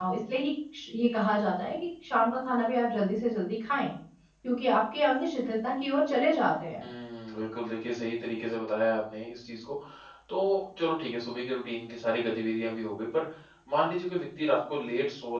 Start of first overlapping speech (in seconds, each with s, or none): none